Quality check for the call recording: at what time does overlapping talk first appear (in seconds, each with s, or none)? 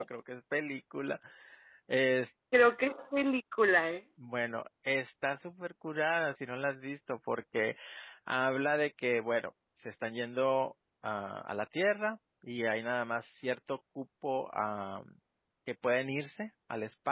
none